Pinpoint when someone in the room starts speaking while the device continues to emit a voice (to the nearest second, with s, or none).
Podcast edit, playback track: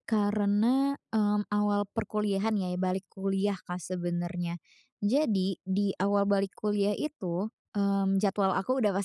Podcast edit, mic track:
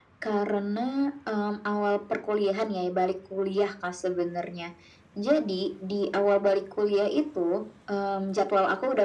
none